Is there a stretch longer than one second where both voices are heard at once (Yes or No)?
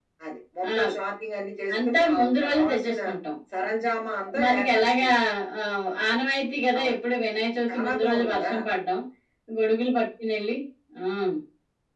Yes